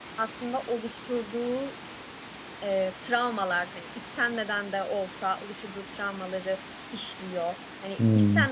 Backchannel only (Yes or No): Yes